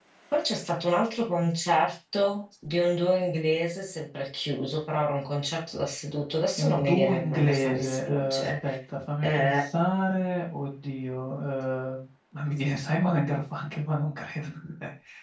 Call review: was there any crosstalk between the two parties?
Yes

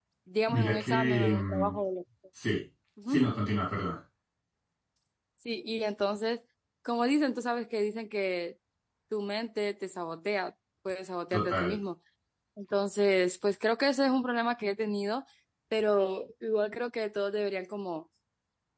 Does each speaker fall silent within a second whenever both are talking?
No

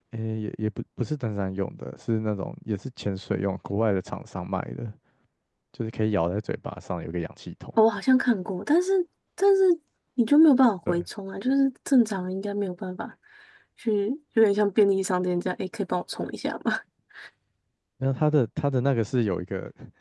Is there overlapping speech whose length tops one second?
No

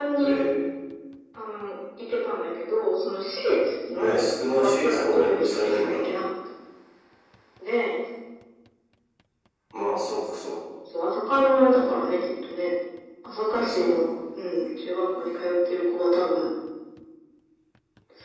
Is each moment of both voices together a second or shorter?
No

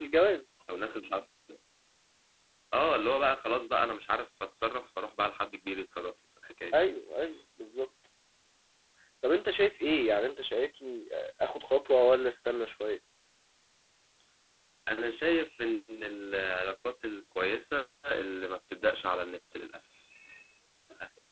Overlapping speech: No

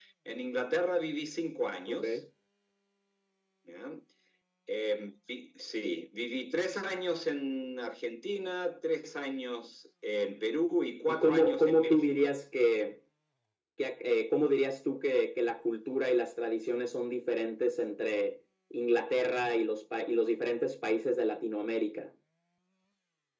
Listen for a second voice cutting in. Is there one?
Yes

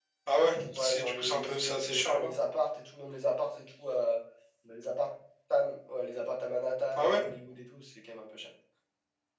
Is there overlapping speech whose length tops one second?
Yes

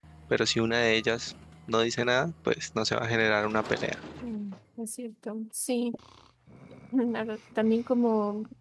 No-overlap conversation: Yes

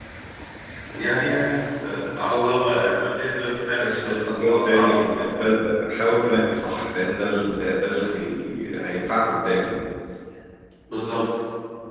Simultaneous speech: Yes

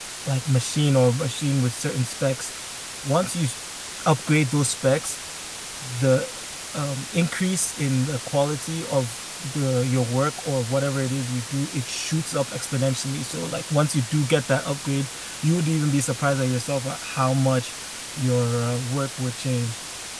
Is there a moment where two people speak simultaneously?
No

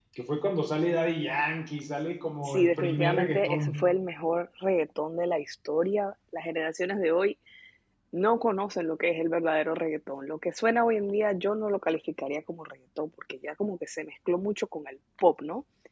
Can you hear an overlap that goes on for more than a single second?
Yes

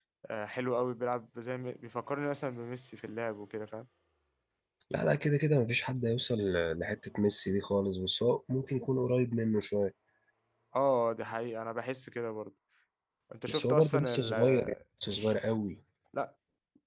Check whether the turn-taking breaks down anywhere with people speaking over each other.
Yes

